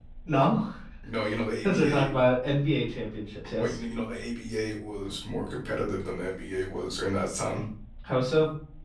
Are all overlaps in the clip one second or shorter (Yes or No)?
Yes